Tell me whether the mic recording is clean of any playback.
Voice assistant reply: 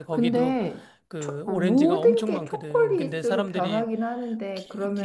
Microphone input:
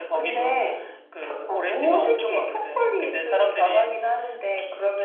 No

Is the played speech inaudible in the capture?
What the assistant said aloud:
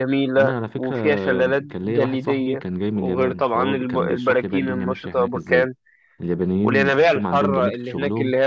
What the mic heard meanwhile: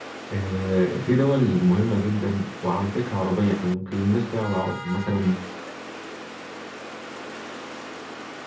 Yes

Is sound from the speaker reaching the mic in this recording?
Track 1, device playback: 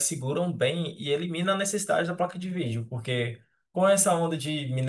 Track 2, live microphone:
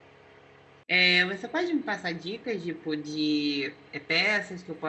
No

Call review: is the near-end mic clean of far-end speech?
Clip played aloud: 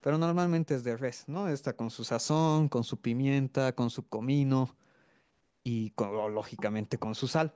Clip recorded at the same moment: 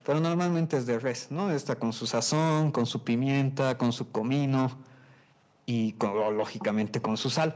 No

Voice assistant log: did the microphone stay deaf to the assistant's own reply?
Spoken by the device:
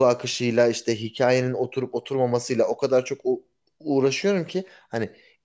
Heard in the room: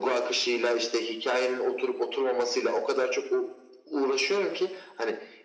No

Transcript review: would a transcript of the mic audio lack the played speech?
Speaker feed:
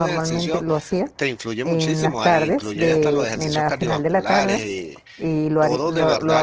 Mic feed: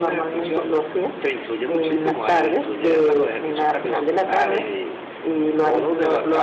No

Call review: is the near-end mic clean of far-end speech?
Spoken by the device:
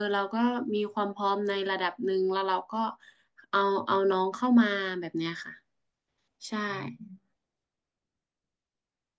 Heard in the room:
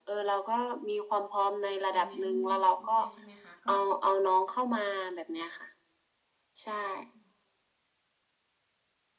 No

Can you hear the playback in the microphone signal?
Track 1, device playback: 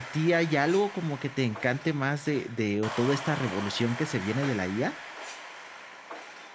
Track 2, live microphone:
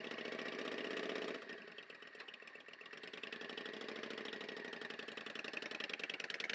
No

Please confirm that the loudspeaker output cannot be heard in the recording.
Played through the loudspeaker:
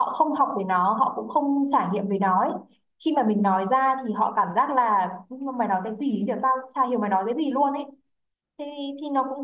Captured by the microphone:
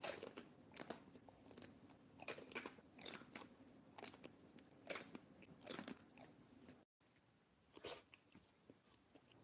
Yes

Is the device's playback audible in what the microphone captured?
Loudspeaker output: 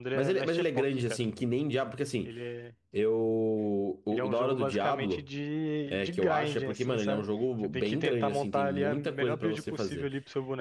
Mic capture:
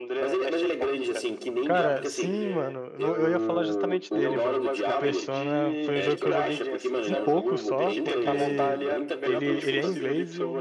Yes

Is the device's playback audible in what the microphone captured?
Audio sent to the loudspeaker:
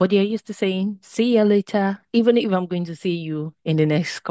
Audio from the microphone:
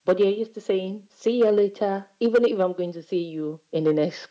Yes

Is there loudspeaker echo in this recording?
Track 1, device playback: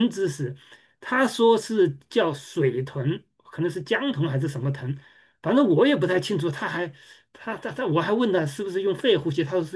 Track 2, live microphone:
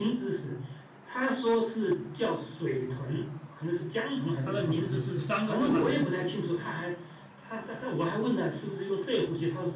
Yes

